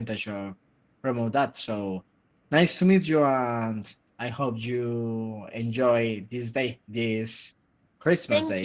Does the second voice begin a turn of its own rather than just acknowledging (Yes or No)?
Yes